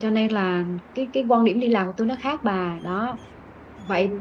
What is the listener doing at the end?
listening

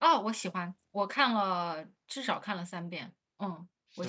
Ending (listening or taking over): taking over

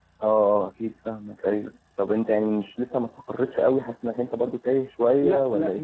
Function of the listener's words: taking over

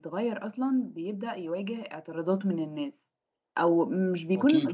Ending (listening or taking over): listening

